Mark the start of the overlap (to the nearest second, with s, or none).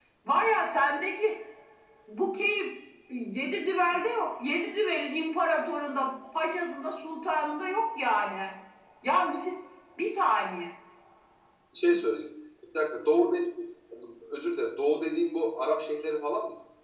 none